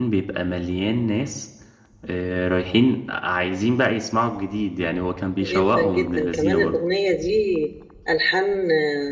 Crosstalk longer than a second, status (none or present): present